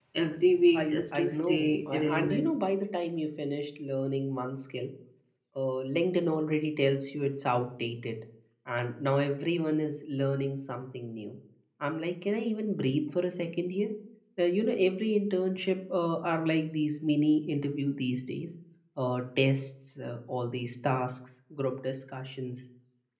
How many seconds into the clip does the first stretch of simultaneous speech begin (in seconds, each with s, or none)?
0.7 s